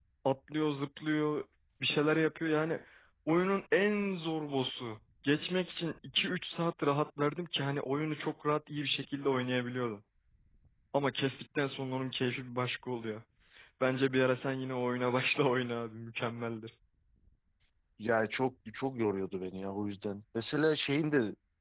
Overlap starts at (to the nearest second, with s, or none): none